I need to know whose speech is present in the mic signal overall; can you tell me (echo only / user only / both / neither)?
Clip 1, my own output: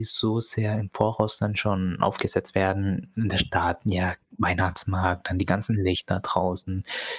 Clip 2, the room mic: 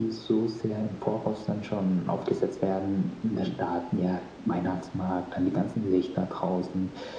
echo only